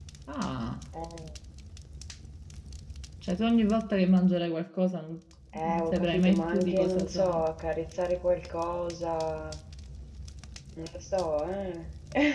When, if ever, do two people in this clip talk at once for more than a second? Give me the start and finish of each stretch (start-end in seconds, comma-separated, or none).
5.6-7.4